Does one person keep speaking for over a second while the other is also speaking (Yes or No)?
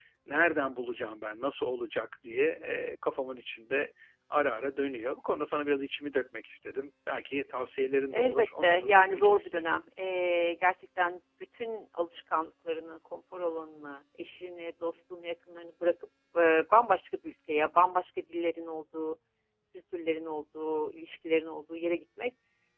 Yes